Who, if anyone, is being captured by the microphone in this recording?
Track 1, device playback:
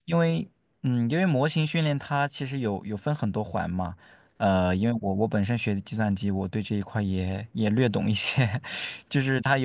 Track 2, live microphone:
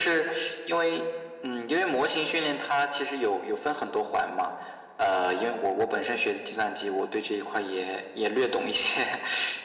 echo only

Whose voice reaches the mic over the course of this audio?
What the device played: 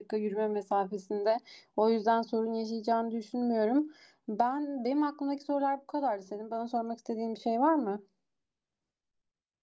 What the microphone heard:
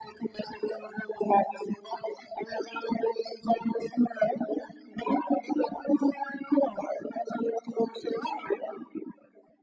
echo only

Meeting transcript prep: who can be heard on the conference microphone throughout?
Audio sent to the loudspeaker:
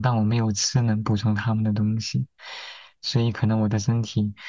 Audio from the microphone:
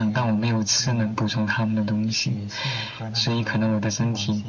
both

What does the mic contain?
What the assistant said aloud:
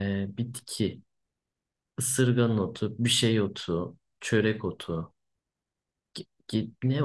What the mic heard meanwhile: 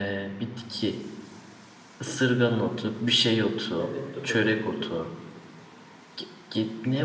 both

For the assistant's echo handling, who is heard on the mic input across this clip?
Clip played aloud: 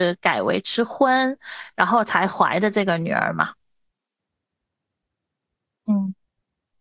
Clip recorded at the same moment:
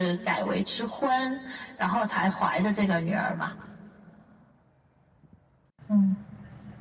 echo only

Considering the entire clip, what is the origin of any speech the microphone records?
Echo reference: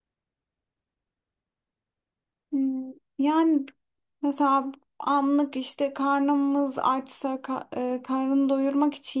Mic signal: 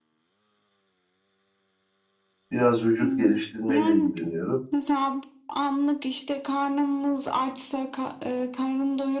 both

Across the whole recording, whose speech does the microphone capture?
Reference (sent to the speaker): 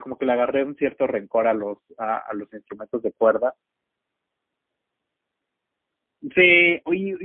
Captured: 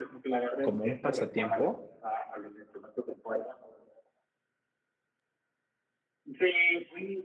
both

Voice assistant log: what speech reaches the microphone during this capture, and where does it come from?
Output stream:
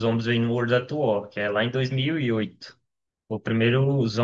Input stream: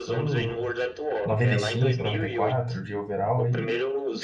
both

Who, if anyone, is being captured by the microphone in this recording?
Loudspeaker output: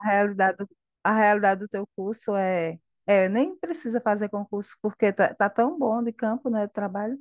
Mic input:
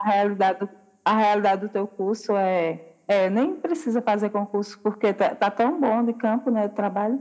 echo only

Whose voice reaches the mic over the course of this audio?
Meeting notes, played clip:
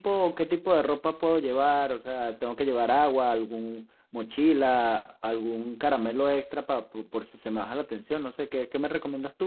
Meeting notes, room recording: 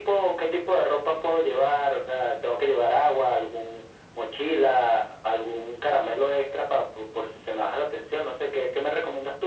echo only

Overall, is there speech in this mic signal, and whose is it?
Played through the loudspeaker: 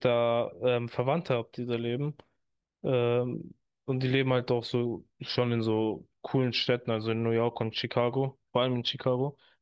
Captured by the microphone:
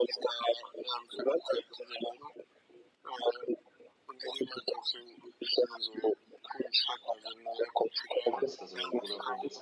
both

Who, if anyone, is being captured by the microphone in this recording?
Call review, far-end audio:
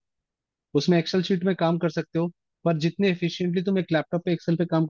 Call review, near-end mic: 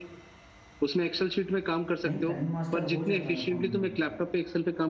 both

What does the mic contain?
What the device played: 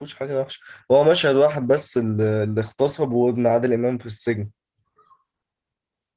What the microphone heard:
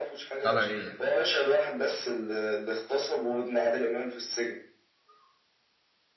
both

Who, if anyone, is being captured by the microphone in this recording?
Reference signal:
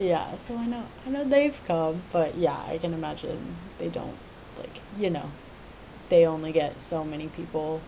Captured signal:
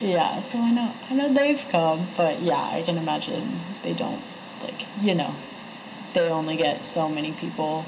echo only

